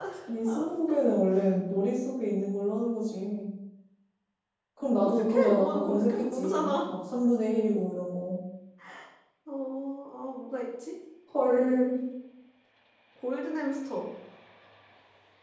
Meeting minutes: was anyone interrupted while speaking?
Yes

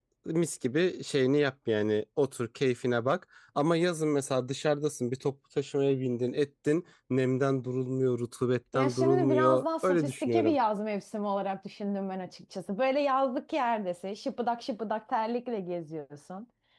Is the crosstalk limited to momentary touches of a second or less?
No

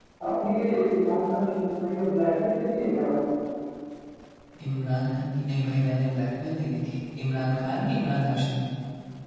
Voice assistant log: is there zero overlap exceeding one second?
Yes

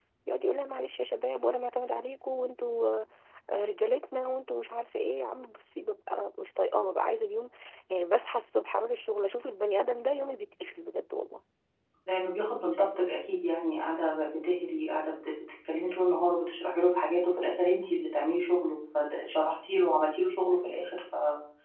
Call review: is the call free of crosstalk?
Yes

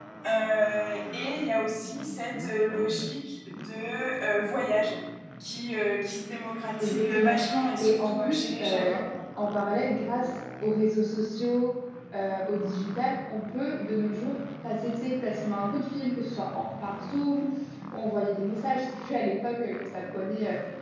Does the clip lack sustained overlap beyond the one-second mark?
No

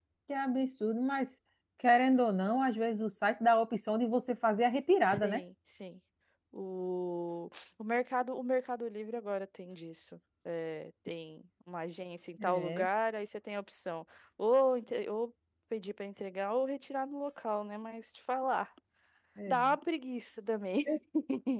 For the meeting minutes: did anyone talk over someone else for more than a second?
No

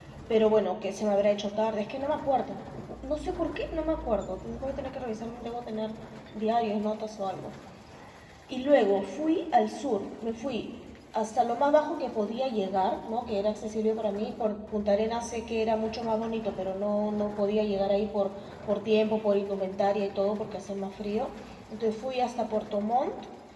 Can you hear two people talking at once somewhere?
No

